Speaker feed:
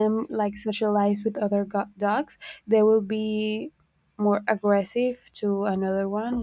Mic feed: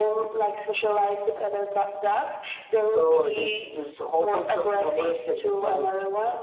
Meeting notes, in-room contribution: present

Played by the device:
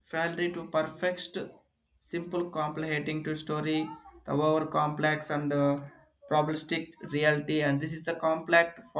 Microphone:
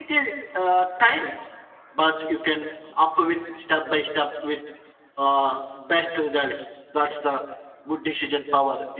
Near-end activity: present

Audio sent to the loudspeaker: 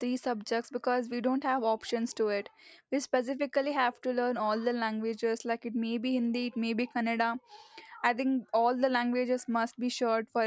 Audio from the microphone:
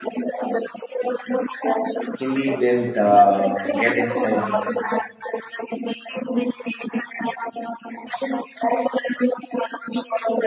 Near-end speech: present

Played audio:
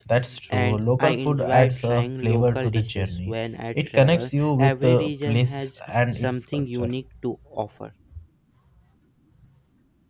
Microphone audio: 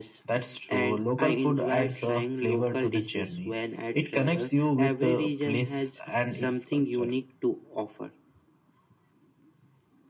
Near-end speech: none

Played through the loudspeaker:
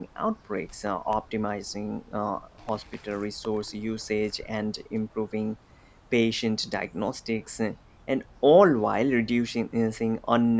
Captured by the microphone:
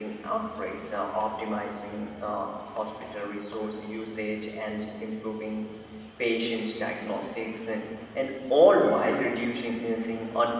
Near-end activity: none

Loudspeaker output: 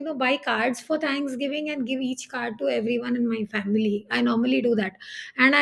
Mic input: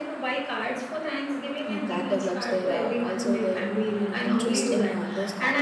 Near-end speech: present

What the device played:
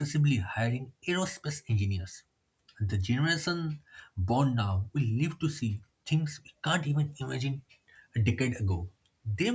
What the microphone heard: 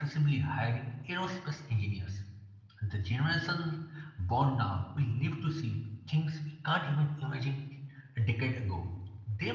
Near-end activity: none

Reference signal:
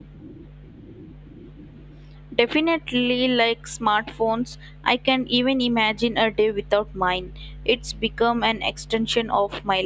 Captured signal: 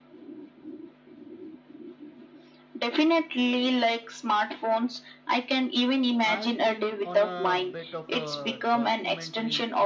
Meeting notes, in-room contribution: present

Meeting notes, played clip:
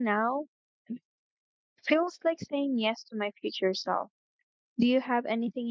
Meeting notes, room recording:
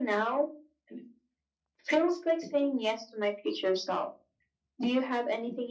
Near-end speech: none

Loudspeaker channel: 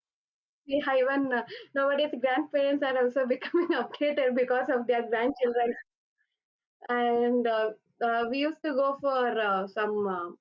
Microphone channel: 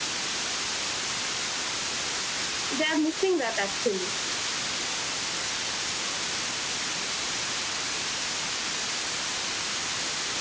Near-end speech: present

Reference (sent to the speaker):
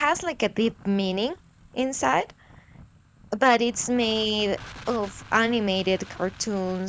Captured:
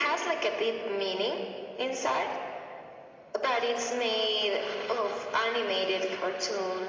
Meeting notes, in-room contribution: none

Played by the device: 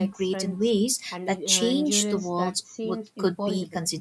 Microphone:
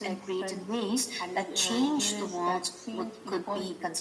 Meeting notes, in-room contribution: none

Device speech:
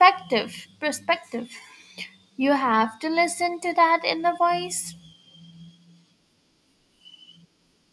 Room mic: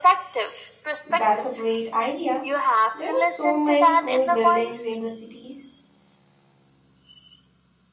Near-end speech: present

